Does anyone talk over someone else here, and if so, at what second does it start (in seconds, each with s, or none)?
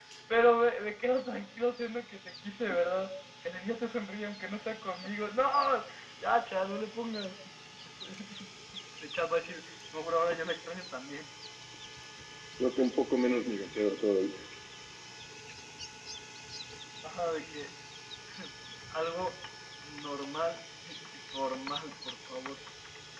none